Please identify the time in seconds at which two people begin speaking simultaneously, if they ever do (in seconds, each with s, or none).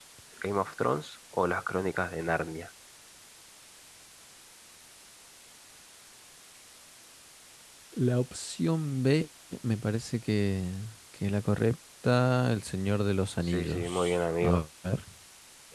13.4 s